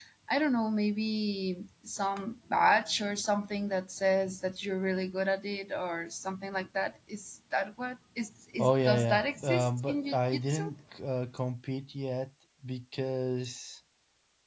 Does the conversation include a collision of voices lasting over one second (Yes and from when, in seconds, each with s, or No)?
Yes, from 8.6 s